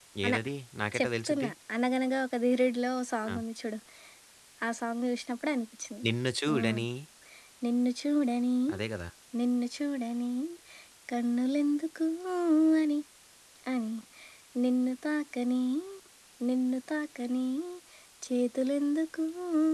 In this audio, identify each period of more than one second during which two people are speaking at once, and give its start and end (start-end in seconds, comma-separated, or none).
none